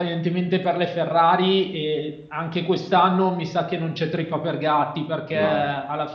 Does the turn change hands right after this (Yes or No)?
No